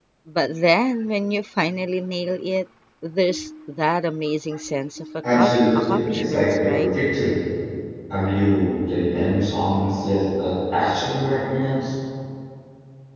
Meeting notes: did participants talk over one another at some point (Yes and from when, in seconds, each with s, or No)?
Yes, from 5.2 s